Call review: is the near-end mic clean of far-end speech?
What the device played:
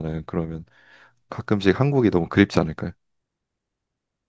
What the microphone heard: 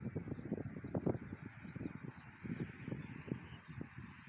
Yes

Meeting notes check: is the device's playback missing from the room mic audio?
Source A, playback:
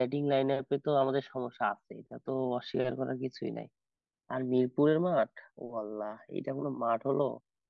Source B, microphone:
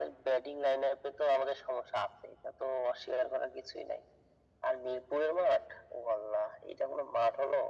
No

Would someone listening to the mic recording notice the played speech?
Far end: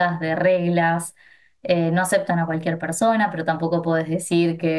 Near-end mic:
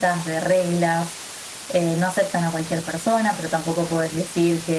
Yes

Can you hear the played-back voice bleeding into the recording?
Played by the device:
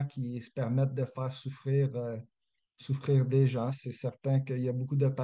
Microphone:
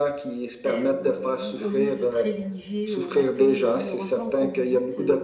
Yes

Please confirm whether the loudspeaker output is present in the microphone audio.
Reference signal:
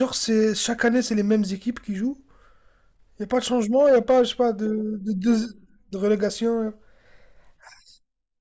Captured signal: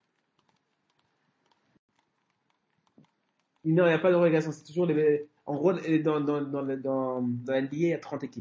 No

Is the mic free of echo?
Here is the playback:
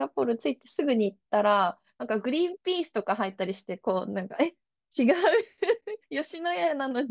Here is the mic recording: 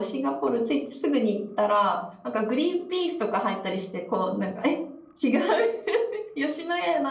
No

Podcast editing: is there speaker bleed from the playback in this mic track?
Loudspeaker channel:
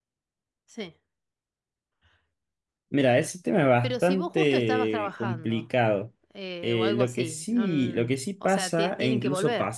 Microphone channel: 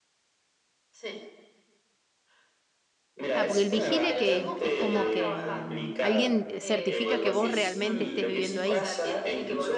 Yes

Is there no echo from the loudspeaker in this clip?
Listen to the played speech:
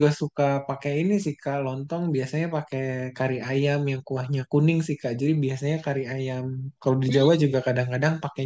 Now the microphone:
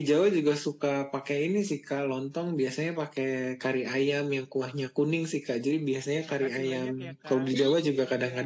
No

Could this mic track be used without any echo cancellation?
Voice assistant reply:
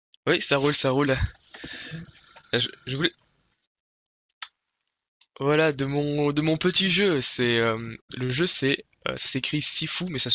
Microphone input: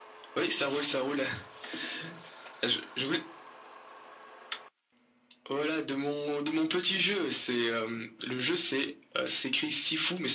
No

